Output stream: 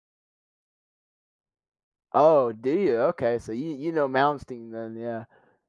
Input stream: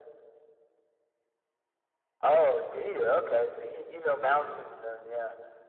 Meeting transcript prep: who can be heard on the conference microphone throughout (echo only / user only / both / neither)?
echo only